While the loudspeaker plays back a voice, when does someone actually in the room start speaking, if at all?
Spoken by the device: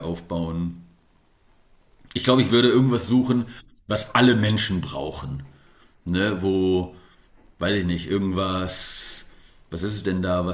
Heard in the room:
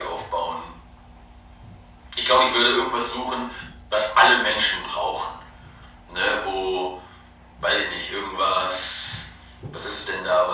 none

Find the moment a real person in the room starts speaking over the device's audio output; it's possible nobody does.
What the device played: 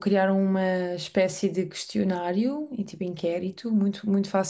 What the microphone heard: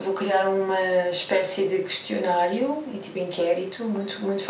none

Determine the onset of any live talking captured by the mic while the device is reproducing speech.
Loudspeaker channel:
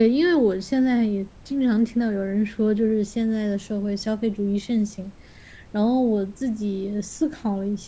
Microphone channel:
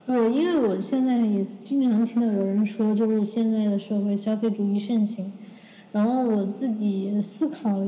none

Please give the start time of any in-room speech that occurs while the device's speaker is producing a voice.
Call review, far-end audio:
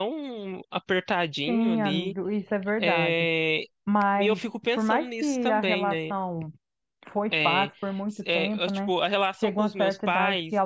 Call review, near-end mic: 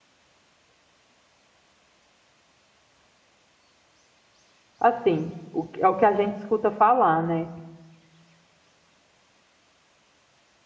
4.8 s

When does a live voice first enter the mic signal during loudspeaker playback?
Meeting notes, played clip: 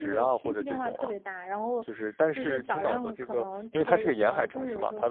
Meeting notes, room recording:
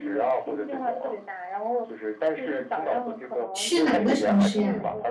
3.5 s

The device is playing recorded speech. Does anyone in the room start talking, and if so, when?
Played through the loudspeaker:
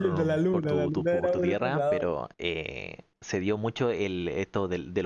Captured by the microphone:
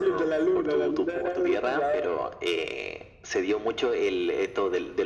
none

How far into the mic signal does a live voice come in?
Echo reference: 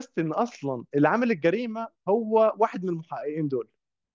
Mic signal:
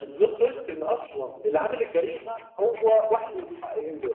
none

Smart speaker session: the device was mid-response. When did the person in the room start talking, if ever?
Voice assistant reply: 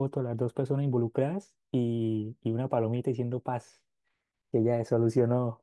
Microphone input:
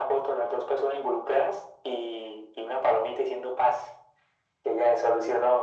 none

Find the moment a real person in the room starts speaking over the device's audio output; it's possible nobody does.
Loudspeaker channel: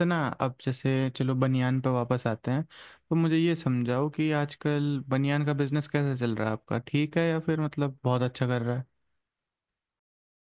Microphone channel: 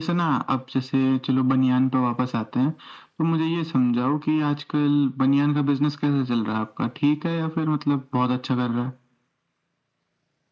none

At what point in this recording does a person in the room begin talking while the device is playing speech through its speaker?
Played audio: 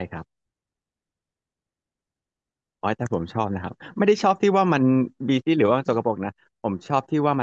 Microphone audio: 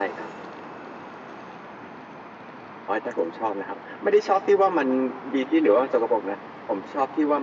none

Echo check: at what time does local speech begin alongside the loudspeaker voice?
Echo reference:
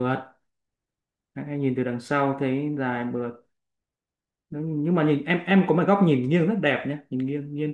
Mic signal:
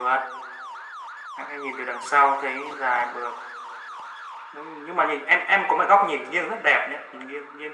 none

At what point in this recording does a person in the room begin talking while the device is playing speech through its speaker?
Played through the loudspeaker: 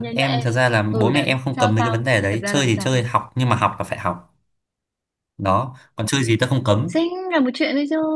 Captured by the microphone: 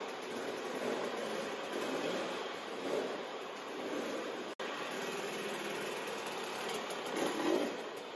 none

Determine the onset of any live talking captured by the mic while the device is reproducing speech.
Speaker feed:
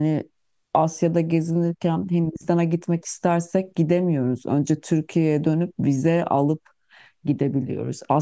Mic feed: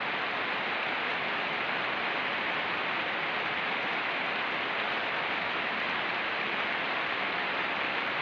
none

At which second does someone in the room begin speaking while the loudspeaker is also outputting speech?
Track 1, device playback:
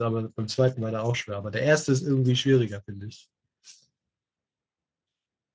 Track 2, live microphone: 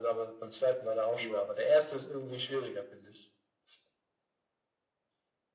1.1 s

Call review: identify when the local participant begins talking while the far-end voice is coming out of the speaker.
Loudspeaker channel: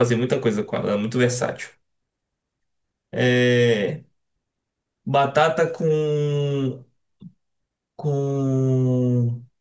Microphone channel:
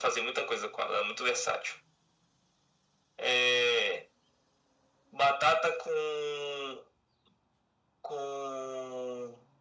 none

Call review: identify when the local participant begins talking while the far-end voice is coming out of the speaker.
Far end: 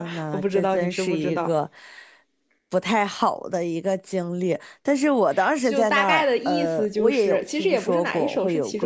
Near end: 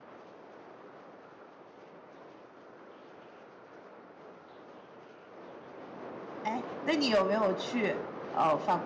6.4 s

